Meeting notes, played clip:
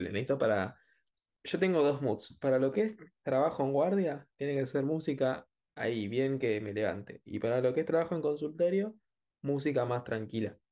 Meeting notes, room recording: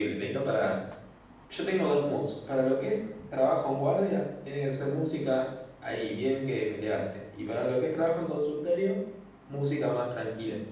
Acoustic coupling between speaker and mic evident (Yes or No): Yes